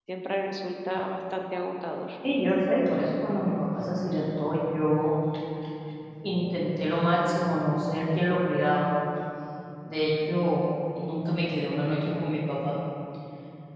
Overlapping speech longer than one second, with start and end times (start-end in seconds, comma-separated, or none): none